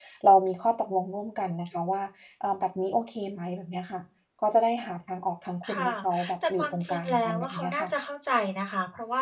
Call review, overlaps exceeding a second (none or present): present